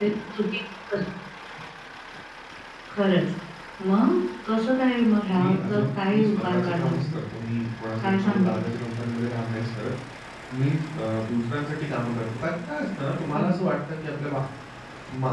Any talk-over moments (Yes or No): Yes